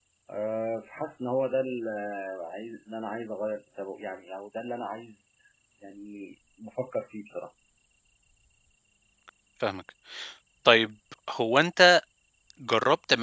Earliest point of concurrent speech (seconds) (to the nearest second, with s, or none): none